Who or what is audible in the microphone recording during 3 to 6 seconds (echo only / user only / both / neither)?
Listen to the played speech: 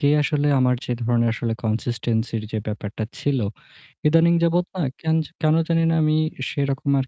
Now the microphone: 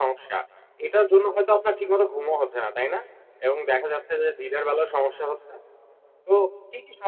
user only